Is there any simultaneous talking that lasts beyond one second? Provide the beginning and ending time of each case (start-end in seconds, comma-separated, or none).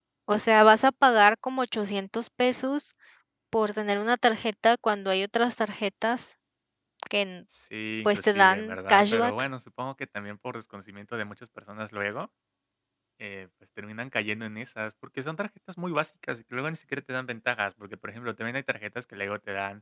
8.0-9.3